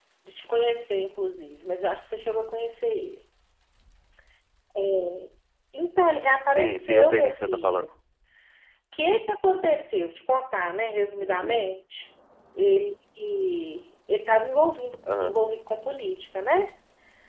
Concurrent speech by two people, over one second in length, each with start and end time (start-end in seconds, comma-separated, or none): 6.5-7.8